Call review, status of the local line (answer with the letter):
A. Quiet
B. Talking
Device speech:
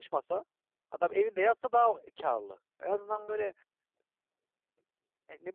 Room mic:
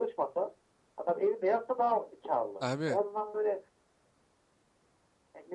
B